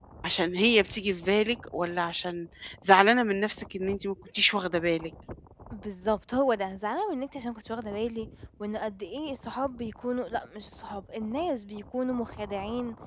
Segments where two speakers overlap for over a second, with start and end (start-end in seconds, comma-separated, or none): none